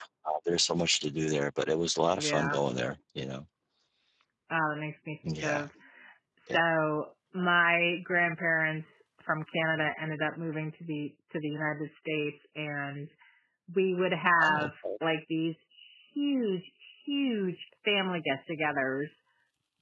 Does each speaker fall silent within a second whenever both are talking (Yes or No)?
Yes